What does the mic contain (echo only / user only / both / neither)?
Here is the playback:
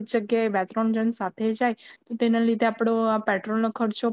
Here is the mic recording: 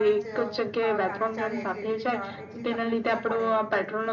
both